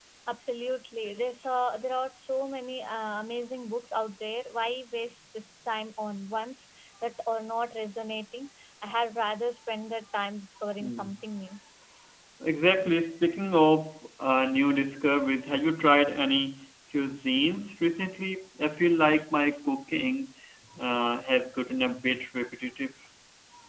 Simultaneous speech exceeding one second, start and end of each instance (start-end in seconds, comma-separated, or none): none